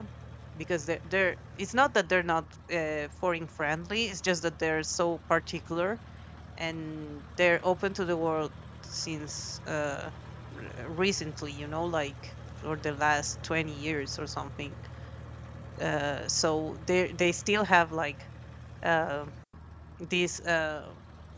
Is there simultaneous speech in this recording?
No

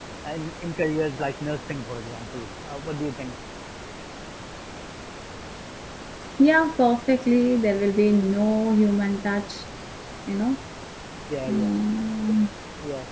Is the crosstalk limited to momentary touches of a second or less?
Yes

